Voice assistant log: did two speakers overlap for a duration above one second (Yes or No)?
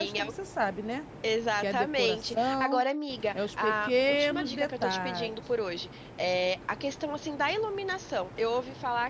Yes